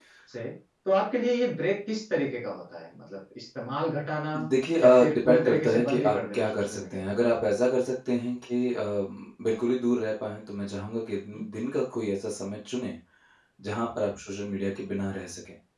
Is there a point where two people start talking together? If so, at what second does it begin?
4.8 s

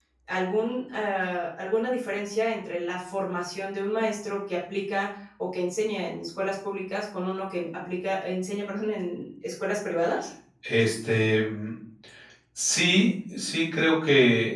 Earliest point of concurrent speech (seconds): none

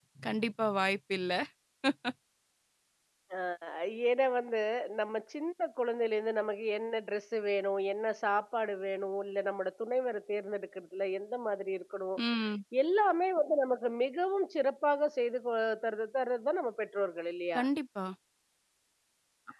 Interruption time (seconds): none

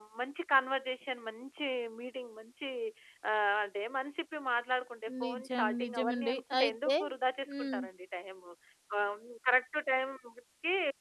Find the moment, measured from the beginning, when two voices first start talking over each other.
5.2 s

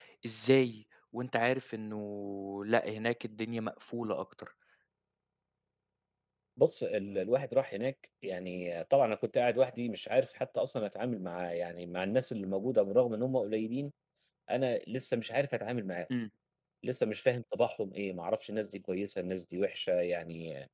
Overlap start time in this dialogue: none

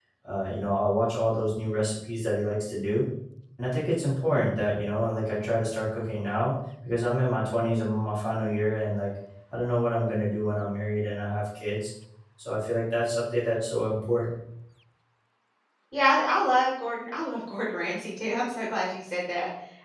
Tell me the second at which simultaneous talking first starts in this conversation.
none

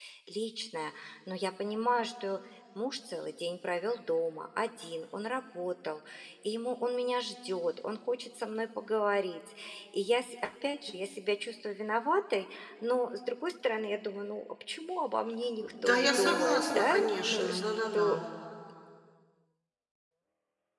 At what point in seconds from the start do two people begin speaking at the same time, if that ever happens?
15.6 s

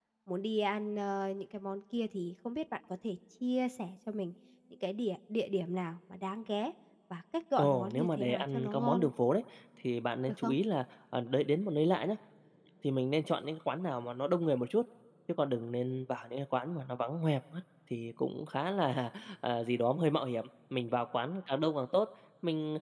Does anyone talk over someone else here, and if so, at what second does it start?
7.6 s

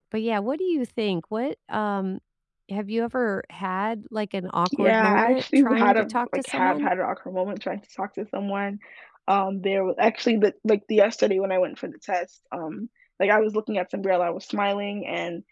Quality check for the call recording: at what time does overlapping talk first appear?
4.7 s

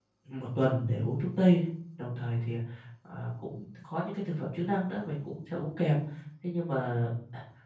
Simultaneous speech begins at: none

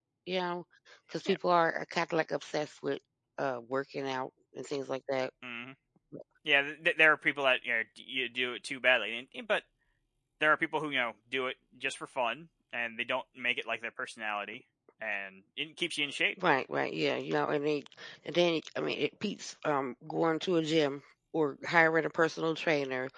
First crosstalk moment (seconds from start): none

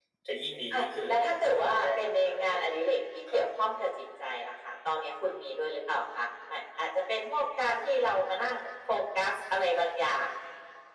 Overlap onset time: 0.7 s

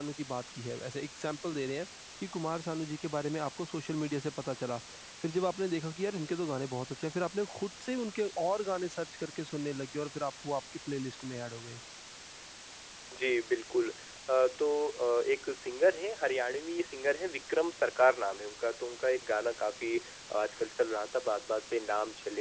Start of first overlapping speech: none

